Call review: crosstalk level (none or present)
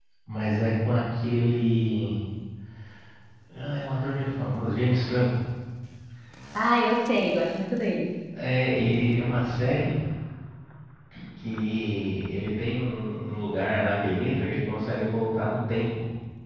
none